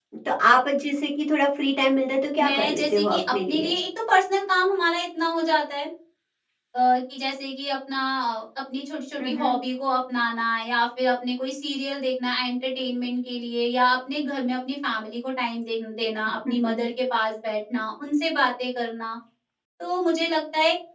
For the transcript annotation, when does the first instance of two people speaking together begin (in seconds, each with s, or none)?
2.5 s